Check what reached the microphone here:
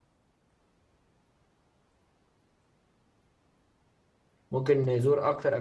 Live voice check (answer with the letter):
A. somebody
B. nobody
A